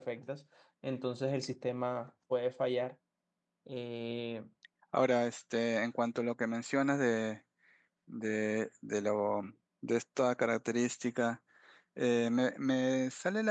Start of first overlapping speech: none

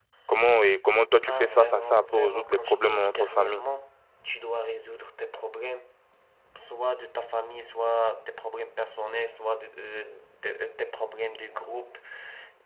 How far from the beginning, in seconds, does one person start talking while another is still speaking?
1.2 s

